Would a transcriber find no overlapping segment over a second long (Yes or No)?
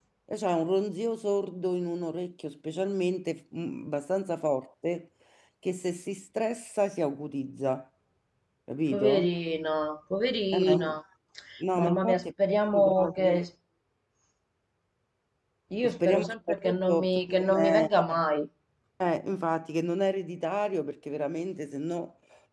No